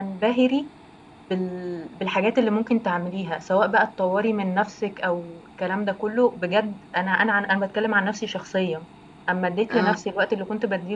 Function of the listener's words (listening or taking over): listening